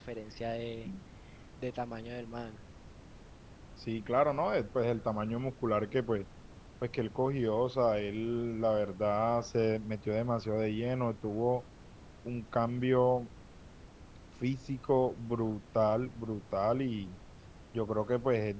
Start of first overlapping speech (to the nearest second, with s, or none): none